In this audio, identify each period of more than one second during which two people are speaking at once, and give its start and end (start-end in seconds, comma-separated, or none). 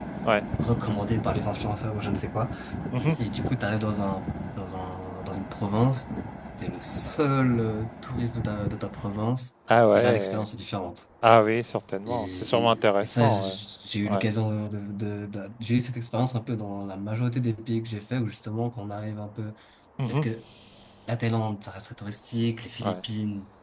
12.1-13.6